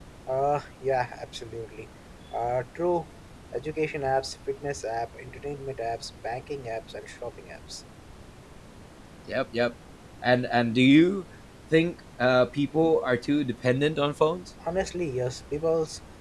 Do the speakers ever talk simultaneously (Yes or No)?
No